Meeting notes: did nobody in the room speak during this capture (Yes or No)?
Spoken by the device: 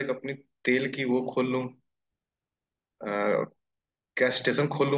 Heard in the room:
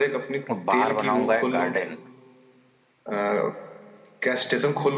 No